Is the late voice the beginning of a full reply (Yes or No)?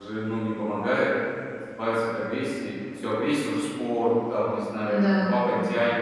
No